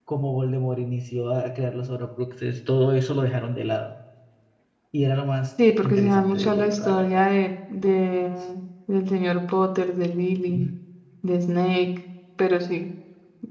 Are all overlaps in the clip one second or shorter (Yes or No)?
No